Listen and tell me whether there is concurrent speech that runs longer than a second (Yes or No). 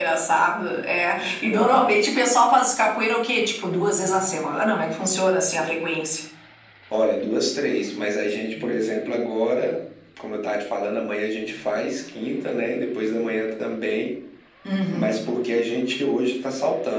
No